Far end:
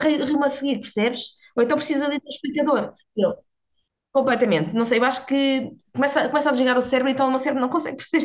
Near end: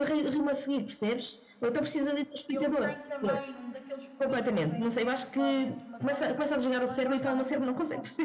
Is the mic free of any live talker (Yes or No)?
No